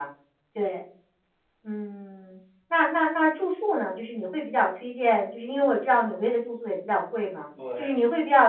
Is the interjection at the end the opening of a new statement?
No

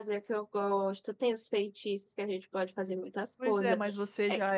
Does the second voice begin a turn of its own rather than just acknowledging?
Yes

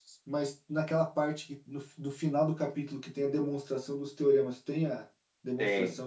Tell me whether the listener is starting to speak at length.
Yes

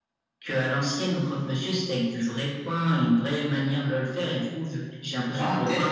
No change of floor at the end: Yes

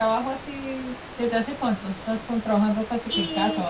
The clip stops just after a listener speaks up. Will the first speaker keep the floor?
No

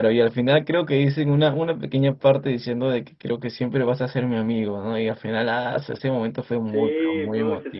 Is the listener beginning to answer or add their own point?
Yes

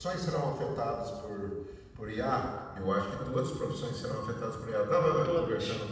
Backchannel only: Yes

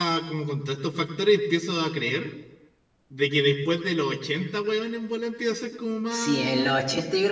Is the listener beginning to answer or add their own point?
Yes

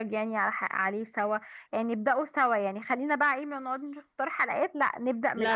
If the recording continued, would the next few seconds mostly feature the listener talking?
Yes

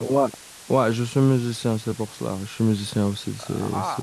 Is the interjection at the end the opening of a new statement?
Yes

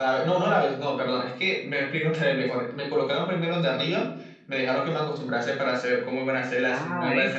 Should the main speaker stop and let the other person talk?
Yes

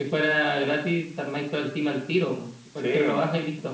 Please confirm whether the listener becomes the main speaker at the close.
Yes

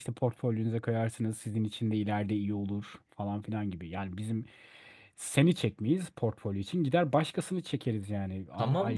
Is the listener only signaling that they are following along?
No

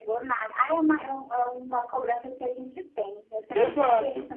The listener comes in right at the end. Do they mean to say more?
Yes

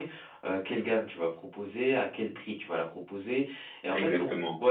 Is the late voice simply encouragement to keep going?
Yes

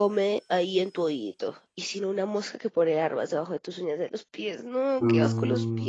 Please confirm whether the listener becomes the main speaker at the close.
Yes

